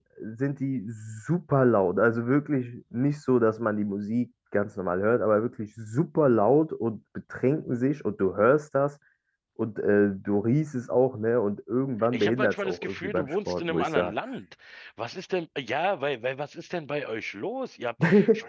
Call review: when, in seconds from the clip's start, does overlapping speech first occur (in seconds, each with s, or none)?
12.1 s